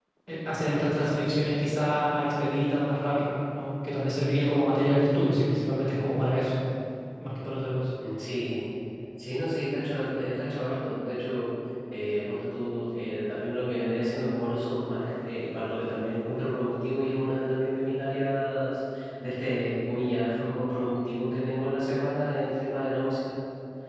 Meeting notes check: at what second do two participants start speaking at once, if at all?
none

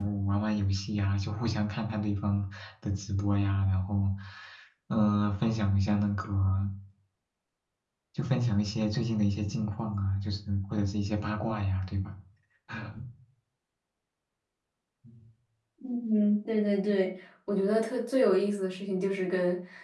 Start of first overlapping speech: none

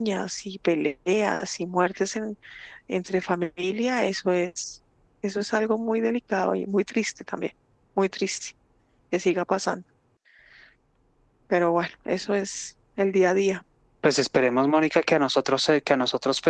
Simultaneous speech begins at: none

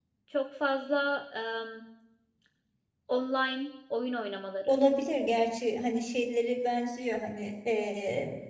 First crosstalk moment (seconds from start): none

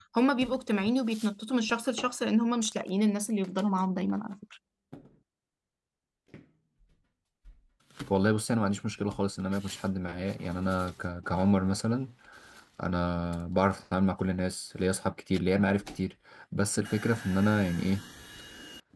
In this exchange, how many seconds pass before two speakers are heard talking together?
none

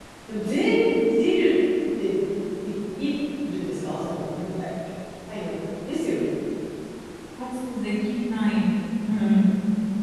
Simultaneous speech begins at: none

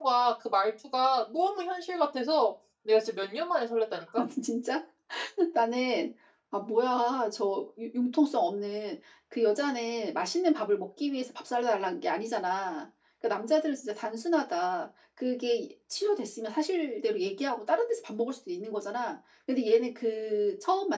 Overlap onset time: none

